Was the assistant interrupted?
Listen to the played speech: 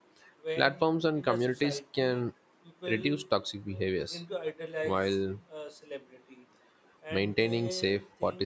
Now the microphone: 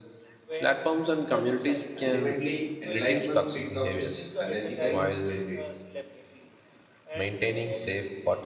Yes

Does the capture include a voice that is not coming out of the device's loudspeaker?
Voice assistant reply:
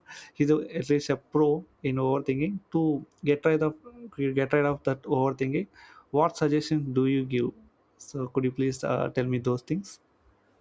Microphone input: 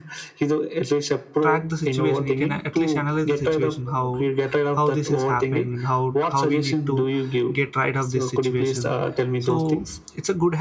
Yes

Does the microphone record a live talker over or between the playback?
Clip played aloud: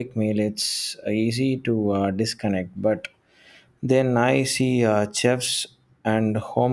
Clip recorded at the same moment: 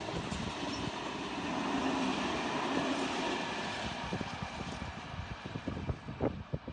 No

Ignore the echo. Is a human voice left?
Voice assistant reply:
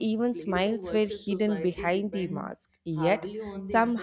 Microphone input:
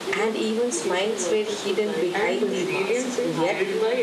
Yes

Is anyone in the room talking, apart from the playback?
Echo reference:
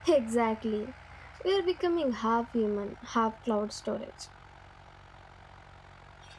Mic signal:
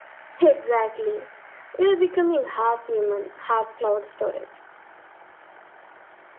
No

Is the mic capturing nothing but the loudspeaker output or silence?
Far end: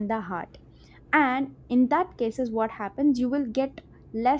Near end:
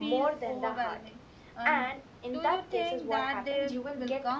No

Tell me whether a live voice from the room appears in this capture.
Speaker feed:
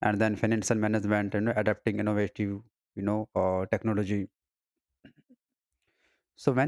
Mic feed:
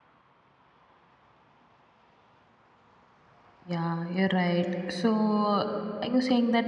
Yes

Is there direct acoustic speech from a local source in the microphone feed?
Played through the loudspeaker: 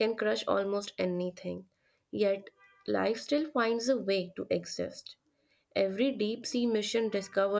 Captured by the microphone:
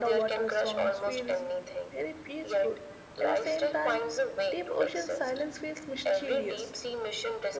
Yes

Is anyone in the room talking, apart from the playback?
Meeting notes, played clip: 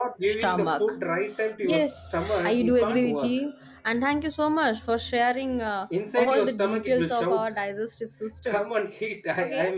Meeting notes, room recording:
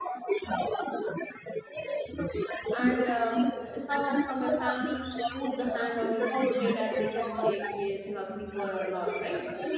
Yes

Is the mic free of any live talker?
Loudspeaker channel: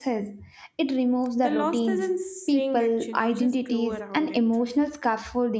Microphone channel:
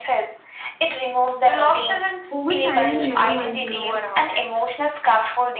No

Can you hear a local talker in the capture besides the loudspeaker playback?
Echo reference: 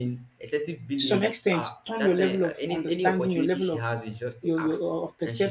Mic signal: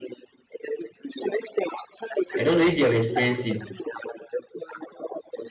Yes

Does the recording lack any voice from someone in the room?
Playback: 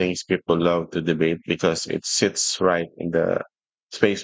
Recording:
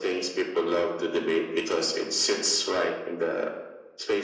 Yes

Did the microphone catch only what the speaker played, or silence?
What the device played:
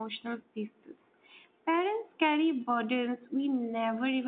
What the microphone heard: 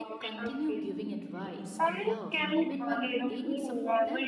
No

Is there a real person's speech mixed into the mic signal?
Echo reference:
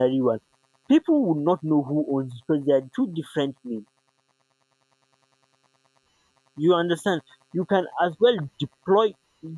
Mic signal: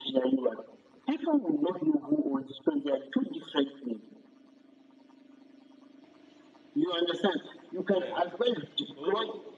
Yes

